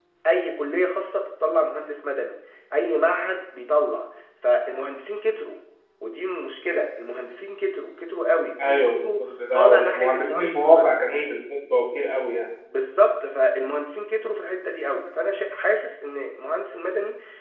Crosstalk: present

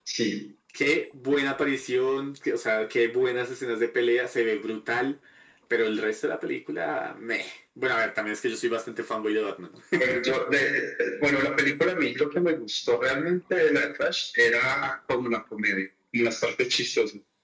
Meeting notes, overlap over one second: none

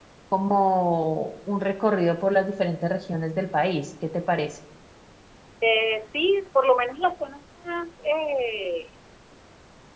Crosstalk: none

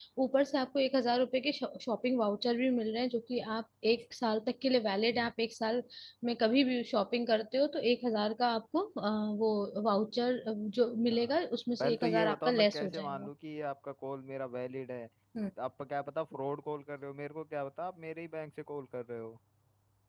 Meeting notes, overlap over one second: present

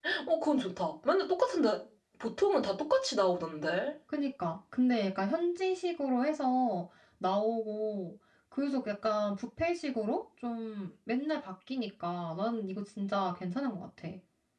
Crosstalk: none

